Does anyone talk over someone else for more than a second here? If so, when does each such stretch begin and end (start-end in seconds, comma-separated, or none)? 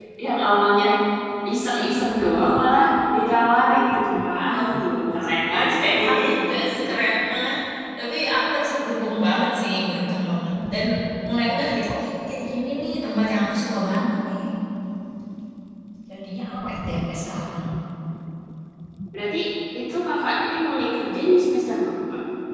none